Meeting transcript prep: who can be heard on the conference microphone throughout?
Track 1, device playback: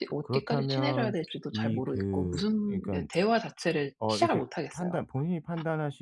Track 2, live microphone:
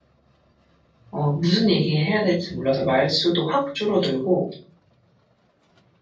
user only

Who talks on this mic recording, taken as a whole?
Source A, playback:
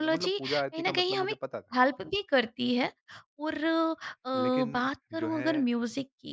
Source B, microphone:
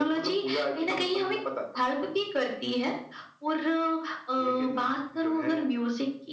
echo only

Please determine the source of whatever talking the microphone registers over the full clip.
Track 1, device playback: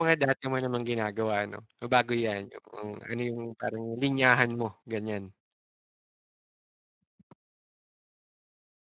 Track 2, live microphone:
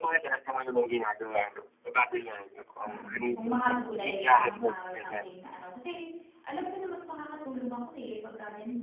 both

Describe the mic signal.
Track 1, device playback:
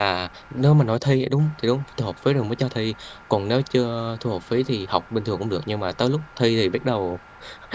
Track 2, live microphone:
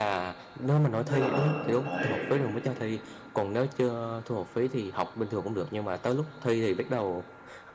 both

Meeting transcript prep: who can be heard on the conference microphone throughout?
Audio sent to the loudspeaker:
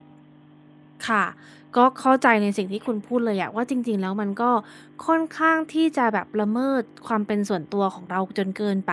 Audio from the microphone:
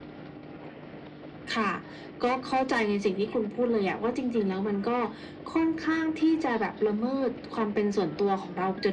echo only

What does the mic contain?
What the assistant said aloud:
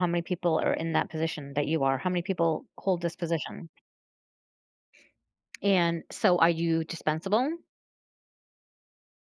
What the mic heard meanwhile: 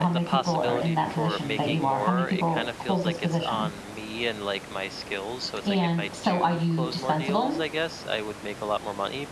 both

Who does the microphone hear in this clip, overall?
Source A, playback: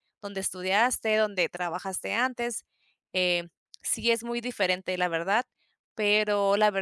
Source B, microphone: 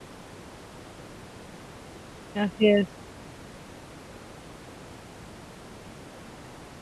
user only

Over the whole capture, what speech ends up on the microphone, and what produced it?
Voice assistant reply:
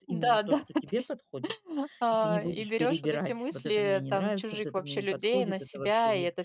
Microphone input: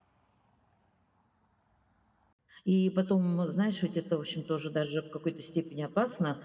user only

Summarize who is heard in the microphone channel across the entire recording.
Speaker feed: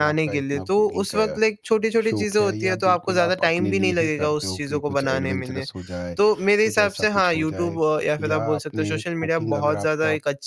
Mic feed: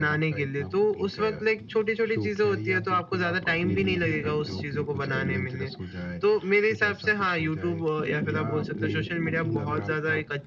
echo only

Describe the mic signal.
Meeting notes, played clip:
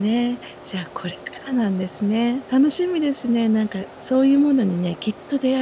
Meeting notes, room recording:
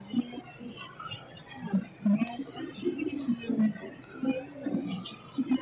echo only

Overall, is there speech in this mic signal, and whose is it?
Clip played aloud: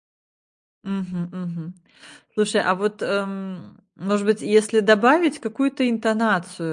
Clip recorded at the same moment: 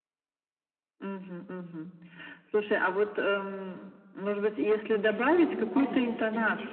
both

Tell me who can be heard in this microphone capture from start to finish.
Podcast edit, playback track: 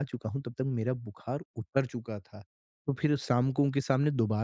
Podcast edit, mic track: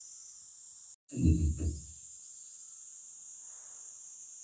user only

